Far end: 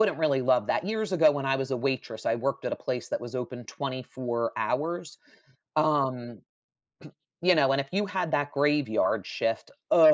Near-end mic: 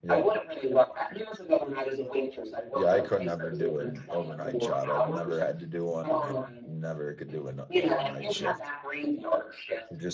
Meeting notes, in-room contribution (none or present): present